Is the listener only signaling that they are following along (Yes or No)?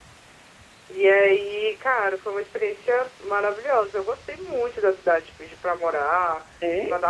Yes